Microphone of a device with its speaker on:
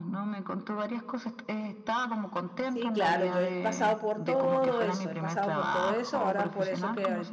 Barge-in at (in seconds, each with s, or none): 2.6 s